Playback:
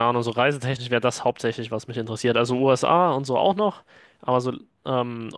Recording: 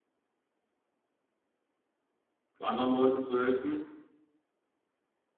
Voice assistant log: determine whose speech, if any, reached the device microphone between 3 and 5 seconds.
user only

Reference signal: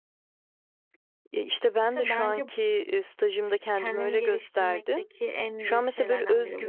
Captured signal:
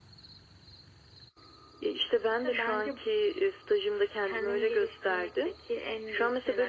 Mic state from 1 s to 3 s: echo only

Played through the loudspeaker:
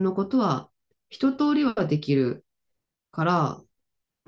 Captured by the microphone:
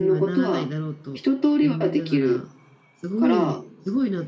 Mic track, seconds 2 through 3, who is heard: both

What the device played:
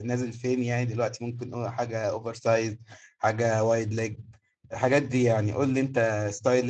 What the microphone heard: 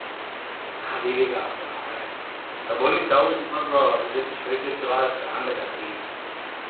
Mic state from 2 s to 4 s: user only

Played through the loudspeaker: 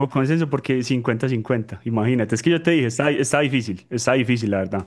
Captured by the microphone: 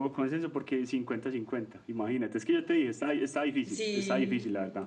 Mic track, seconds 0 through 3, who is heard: echo only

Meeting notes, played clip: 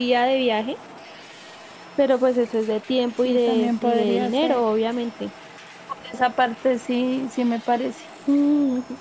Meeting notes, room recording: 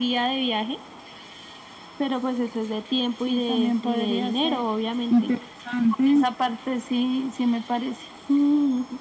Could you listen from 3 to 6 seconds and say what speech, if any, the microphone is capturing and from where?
both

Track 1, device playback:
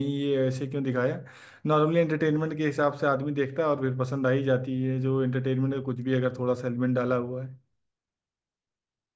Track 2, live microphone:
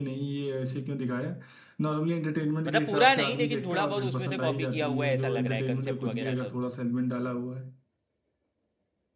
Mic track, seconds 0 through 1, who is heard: echo only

